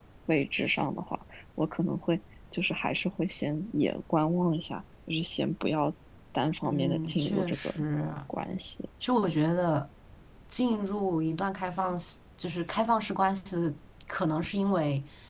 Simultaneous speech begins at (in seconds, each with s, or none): 6.6 s